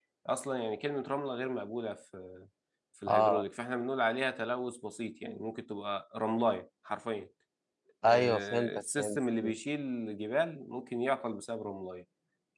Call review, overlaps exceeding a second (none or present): present